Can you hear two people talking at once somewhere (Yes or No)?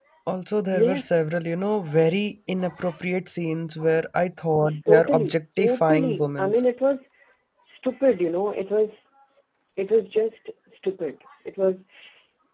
Yes